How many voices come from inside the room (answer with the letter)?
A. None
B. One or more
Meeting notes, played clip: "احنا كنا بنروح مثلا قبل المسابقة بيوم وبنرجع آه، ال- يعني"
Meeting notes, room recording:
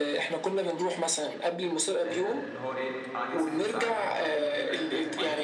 B